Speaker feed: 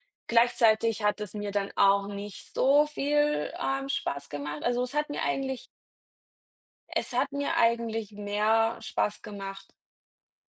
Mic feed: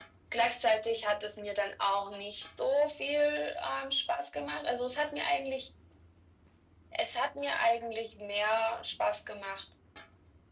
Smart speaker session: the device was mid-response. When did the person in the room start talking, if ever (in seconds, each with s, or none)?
none